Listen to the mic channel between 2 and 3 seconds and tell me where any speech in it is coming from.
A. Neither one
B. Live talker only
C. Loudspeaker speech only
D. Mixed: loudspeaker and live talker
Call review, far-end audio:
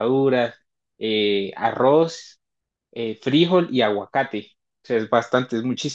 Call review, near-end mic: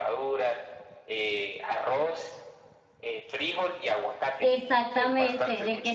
C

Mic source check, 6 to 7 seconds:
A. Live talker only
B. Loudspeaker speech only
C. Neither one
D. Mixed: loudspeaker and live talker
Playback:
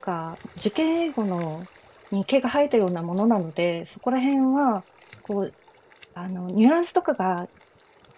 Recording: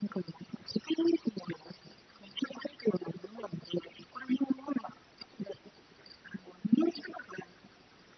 B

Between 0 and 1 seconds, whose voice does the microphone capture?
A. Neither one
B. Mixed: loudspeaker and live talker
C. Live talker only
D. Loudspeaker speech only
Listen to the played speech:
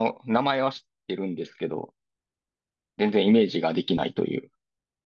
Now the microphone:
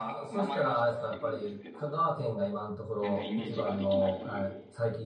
B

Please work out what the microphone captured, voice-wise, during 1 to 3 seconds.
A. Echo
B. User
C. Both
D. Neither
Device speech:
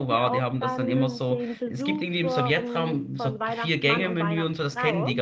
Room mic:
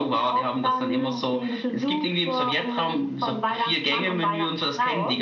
A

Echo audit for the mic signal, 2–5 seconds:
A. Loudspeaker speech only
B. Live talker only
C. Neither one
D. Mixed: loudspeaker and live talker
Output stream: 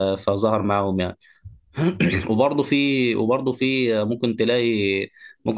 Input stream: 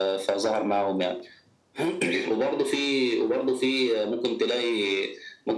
A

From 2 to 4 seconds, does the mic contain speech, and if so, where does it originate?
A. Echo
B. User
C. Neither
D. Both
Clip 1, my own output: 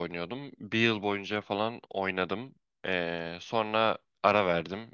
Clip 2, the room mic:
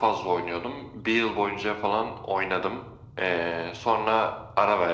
A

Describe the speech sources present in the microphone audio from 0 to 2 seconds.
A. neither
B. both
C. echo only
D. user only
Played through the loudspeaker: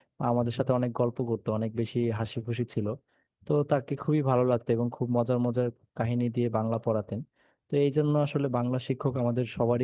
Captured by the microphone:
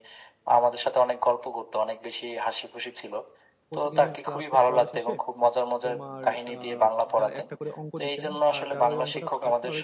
C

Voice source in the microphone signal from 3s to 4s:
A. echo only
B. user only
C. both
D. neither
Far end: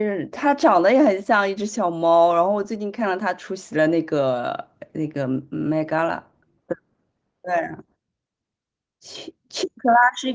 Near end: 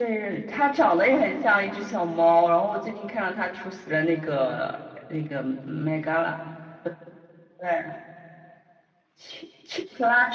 A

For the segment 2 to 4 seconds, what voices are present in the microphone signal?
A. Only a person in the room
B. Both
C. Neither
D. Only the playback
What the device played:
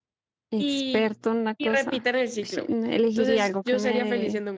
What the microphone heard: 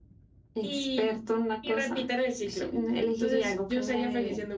D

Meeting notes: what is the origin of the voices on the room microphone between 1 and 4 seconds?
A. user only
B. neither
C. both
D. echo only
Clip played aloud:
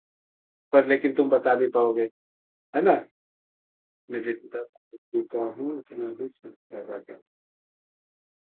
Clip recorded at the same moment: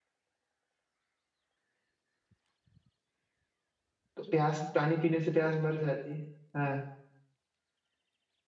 B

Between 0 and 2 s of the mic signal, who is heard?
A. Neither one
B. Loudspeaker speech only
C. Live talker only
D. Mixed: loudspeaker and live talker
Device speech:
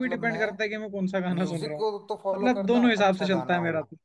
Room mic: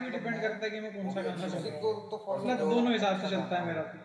D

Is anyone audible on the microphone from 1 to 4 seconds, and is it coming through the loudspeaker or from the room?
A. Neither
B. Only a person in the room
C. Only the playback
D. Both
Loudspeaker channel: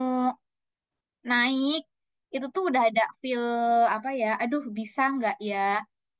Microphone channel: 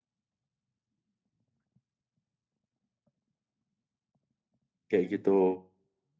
A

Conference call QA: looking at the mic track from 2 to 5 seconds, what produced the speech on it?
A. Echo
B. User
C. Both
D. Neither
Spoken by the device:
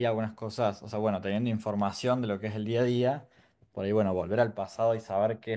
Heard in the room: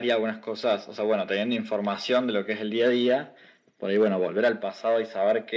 A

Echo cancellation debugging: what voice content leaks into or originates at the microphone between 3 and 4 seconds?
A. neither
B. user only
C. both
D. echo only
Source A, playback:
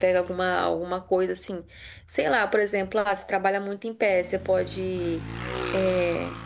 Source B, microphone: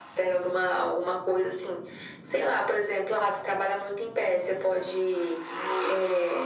D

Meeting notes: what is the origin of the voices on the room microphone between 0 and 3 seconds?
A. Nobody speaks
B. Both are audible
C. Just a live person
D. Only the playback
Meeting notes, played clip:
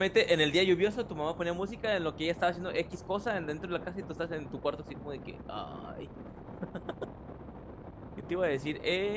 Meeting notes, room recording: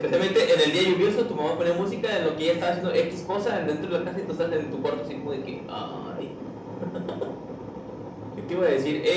D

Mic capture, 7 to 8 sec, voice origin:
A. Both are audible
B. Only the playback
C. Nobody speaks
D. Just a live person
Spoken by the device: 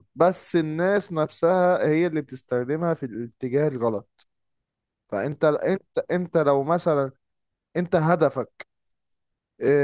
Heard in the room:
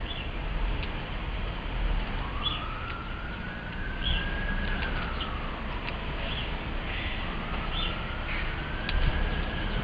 C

